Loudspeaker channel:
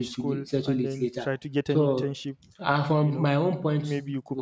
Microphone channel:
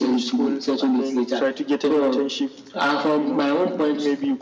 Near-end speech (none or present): none